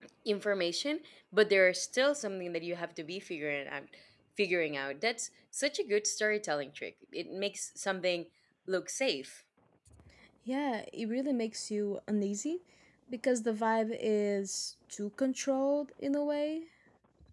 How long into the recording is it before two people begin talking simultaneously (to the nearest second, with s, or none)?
none